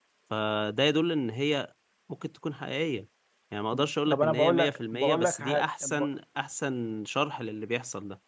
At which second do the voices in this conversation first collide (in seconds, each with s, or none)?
4.1 s